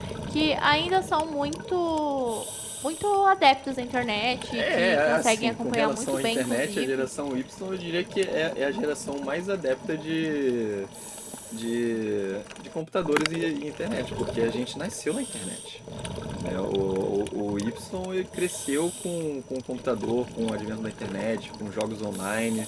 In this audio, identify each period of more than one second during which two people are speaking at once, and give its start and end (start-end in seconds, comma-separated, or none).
4.5-7.1